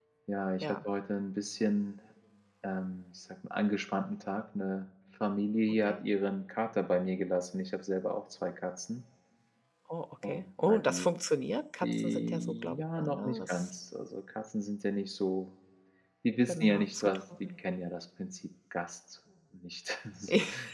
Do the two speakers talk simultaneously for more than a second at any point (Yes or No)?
Yes